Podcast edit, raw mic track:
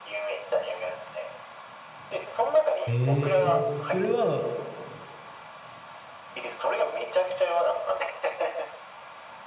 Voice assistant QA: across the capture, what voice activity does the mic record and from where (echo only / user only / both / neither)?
both